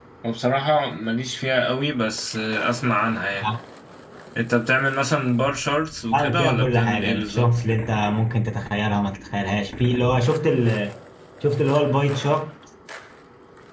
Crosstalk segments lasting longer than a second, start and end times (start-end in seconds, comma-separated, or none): 6.1-7.5